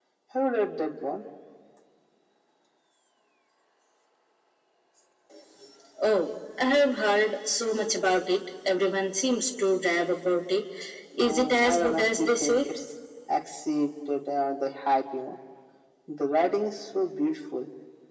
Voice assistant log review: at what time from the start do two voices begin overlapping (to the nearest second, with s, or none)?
11 s